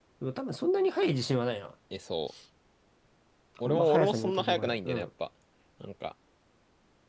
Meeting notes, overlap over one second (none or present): present